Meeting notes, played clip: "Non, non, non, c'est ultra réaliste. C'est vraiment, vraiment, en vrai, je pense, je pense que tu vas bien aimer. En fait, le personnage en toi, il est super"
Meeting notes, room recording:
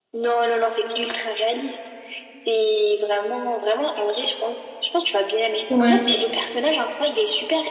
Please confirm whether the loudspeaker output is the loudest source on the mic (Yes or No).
No